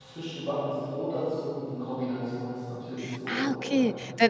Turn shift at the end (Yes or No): Yes